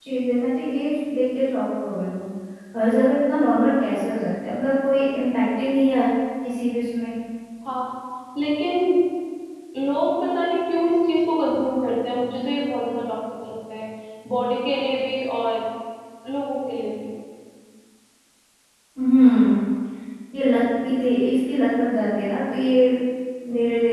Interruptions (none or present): none